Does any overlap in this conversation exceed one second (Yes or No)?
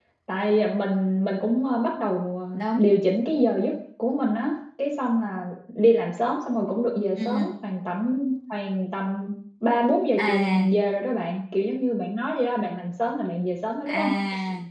No